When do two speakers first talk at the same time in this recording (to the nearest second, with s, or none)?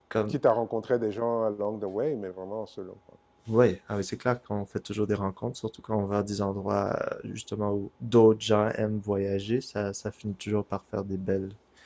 none